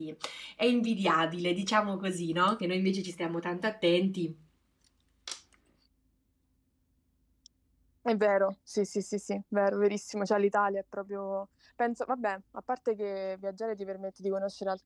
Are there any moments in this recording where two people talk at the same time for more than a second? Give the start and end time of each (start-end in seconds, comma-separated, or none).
none